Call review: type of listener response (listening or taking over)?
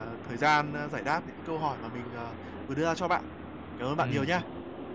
taking over